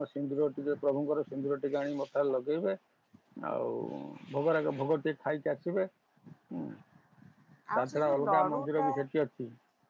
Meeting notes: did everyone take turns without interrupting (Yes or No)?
No